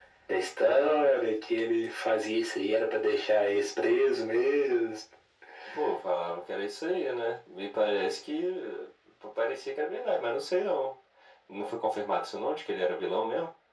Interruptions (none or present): none